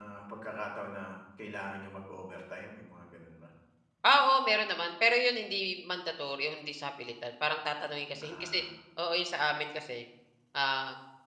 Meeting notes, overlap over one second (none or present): none